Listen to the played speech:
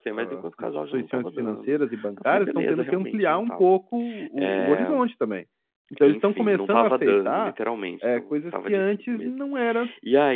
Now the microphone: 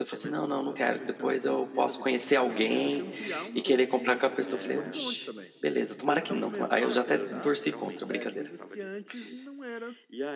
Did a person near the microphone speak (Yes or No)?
Yes